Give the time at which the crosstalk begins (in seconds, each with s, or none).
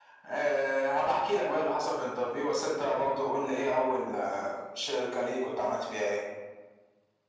none